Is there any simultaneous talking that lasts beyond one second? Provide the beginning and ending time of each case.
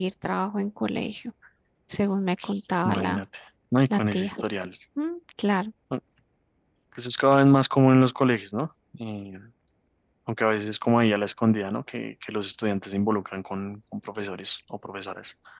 none

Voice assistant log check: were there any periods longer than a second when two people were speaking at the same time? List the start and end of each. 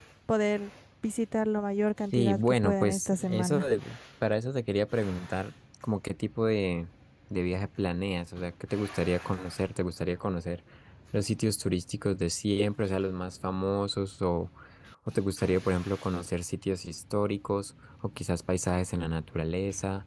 2.1-3.7

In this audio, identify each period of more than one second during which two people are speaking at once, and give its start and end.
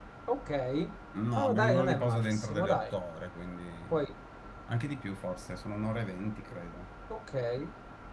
1.4-2.8

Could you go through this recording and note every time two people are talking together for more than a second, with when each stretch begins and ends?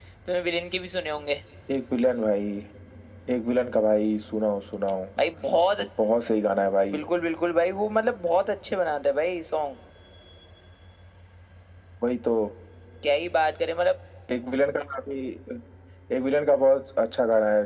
none

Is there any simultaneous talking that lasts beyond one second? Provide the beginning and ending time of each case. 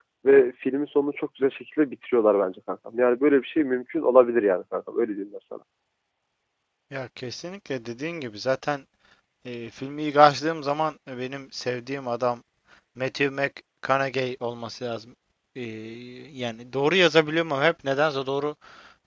none

